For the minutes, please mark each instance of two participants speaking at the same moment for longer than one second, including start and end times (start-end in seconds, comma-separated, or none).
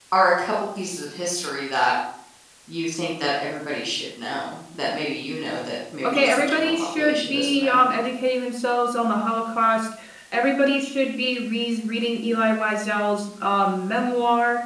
6.0-7.8